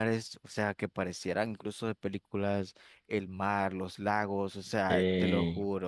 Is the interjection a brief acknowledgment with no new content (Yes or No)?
Yes